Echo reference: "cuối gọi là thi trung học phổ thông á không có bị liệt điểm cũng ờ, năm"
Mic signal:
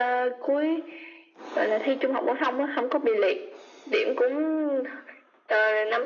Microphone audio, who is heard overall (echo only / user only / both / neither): echo only